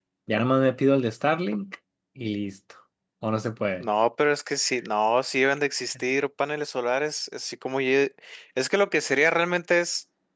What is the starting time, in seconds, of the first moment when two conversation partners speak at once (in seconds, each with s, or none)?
none